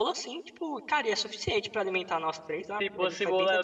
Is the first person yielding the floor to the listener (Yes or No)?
Yes